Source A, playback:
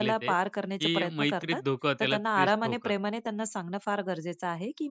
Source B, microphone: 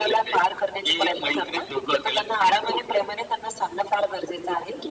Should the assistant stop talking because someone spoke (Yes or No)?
No